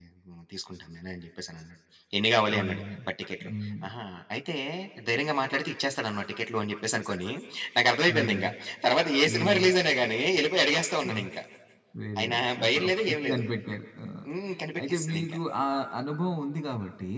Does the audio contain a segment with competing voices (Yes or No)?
Yes